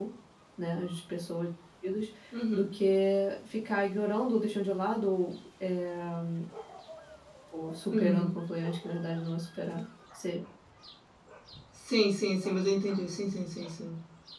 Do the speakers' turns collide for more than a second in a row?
No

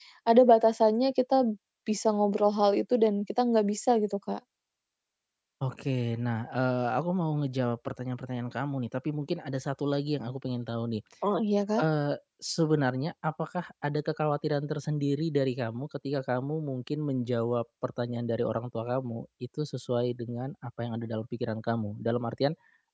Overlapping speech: No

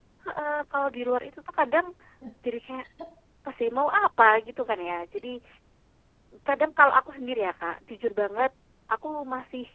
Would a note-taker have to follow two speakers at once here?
No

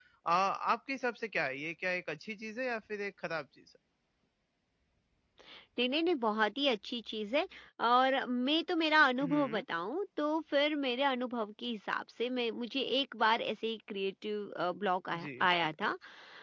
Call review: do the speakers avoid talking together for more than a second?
Yes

